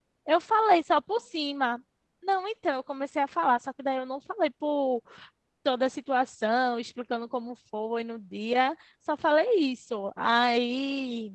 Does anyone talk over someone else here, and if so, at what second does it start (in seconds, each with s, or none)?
none